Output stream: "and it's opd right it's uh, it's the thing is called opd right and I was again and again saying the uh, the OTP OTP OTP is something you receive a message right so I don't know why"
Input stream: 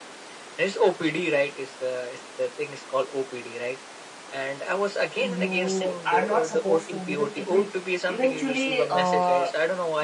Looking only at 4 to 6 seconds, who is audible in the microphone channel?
both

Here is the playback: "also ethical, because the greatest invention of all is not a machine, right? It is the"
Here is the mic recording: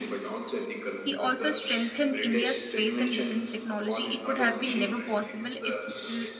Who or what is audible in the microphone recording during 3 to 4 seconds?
both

